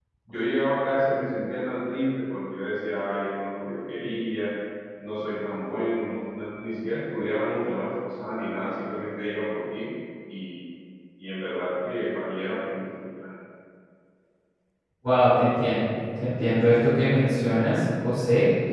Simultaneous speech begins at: none

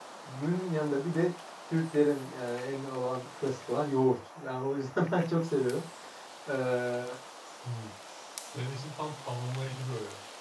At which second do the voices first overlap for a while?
none

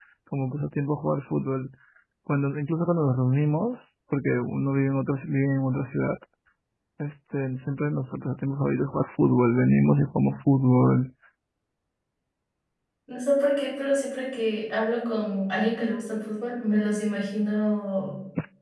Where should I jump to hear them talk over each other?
none

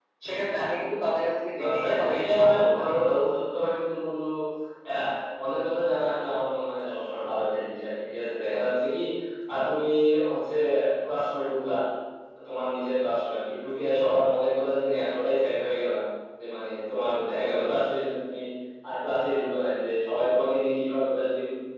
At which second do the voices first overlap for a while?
1.6 s

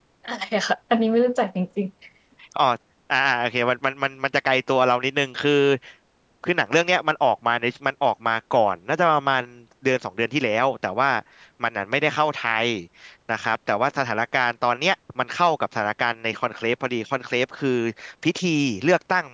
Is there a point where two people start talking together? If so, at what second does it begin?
none

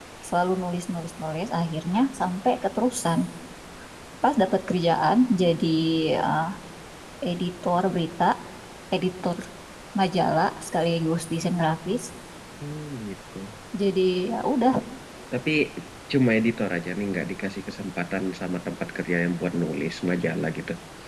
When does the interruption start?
none

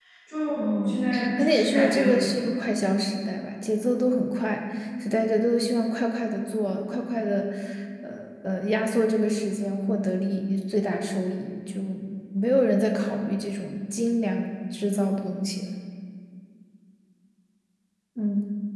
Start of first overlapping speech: 0.6 s

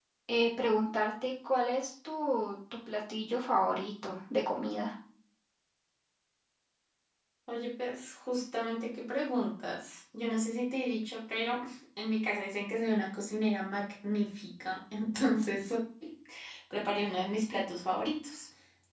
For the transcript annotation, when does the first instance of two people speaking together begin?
none

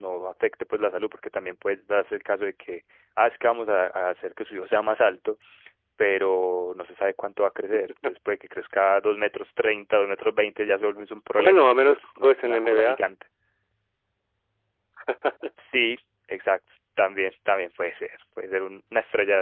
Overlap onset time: 11.4 s

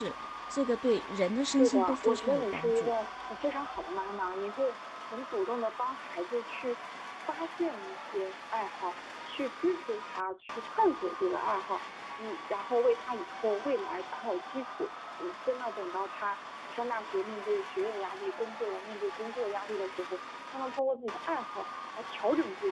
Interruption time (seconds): 1.5 s

